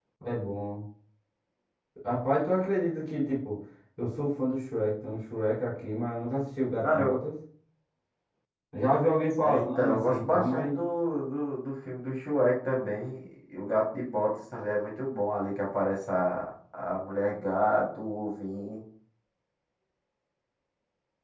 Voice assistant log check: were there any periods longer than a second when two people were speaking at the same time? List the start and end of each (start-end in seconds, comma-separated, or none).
9.4-10.8